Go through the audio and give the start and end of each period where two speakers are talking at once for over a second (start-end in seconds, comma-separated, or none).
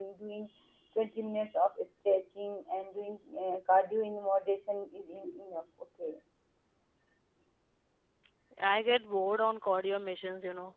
none